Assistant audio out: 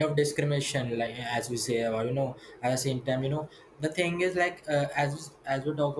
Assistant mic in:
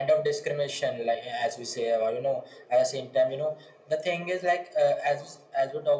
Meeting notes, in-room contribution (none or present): none